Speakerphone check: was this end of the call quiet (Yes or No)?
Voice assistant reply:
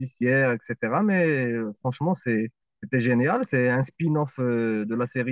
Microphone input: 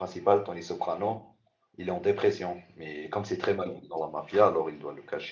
No